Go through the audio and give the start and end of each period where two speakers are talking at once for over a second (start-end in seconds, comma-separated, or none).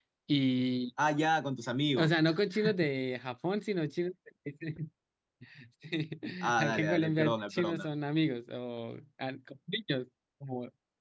6.6-7.9